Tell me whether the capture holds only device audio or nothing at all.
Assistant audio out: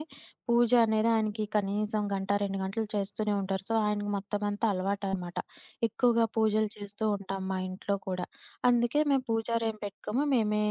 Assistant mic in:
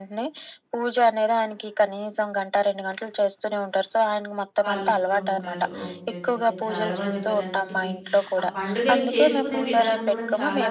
No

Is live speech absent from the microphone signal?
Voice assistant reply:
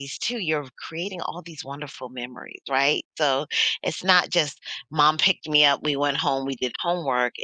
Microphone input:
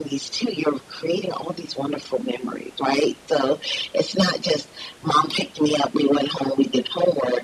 Yes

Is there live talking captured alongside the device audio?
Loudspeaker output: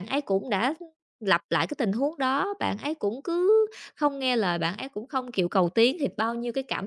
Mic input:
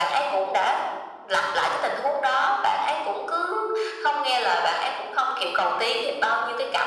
No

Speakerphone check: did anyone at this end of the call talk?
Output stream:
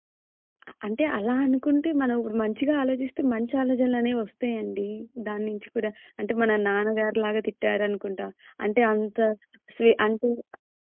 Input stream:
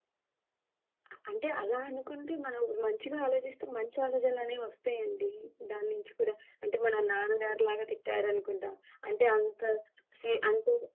No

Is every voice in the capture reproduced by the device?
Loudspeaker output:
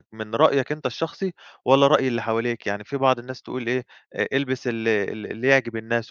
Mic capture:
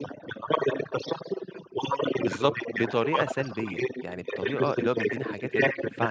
No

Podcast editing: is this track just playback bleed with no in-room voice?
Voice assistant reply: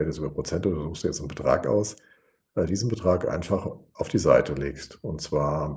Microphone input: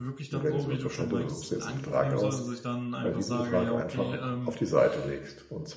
No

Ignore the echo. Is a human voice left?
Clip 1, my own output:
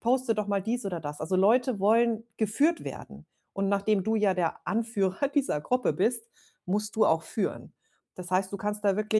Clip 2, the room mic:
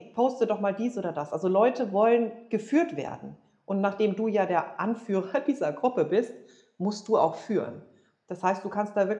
No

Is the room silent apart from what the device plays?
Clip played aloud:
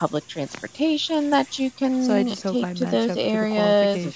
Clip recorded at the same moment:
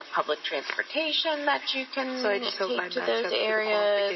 Yes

